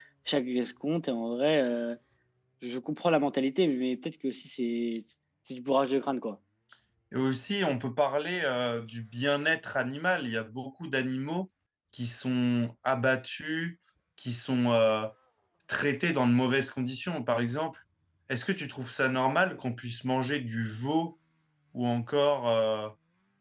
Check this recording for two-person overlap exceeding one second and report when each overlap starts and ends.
none

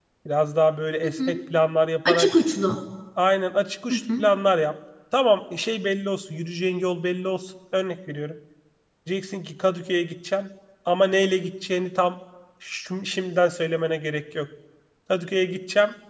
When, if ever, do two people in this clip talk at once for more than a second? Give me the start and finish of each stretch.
none

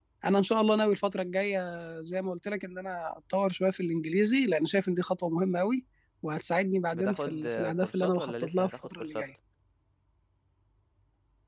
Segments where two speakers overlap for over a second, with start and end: 6.9-9.3

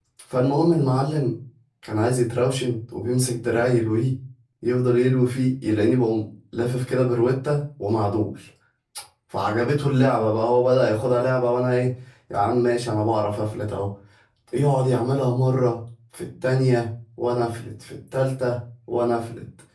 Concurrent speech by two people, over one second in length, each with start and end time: none

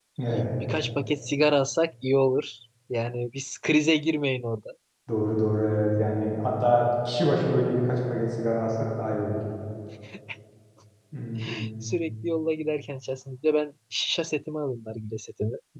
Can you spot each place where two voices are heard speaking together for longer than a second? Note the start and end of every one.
none

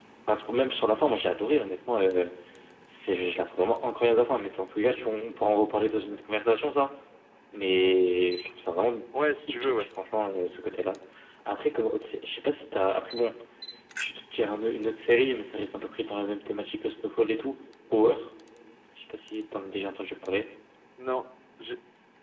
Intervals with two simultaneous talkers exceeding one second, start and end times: none

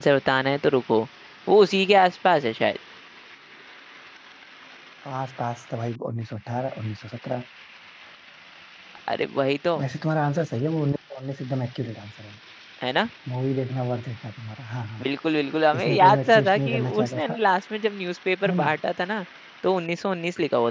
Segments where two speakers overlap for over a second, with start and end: 15.8-17.4

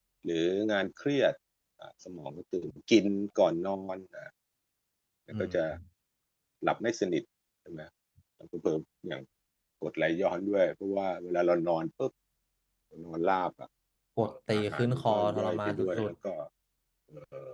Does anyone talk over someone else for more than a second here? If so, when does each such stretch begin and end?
14.6-16.1

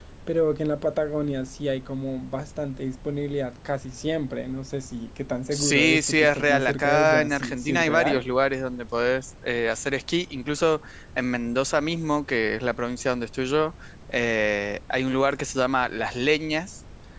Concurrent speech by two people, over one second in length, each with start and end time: 5.5-8.2

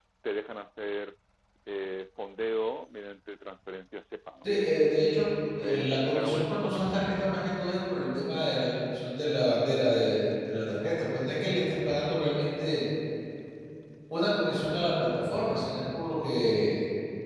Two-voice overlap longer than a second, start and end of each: 5.6-7.0

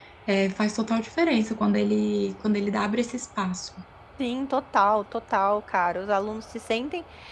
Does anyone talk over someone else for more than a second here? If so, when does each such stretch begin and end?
none

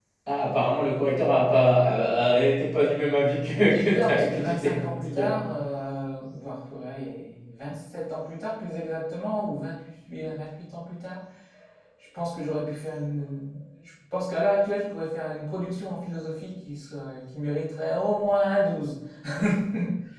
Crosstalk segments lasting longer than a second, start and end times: 3.7-5.4

